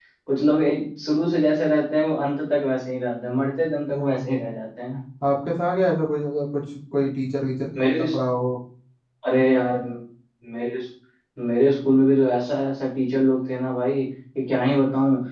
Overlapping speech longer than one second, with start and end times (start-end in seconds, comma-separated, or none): none